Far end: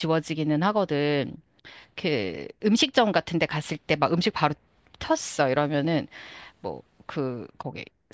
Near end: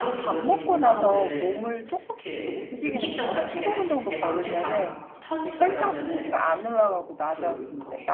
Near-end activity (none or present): present